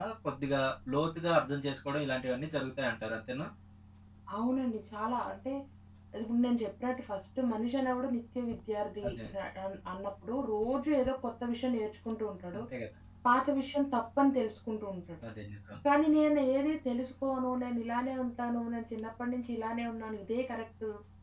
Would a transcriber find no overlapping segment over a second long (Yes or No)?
Yes